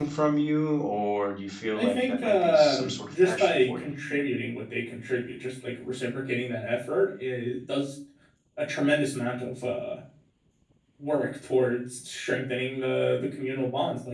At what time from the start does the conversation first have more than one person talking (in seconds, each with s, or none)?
1.8 s